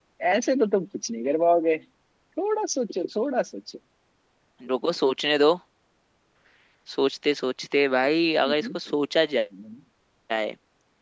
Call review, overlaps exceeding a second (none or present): none